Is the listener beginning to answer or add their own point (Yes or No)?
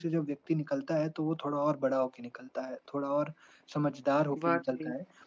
No